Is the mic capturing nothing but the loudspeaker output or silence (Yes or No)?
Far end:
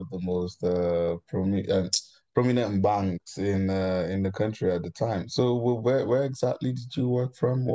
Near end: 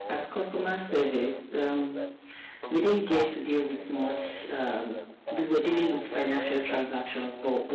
No